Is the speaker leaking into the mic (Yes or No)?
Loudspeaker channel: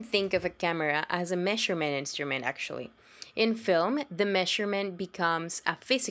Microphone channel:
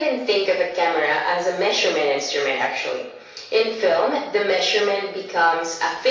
Yes